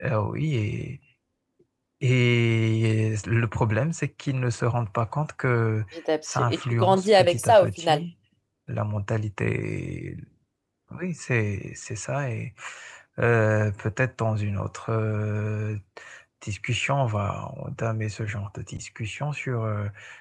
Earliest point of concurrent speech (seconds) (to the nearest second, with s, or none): 6 s